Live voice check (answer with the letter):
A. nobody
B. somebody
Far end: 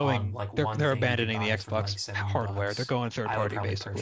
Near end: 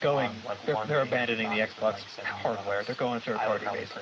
A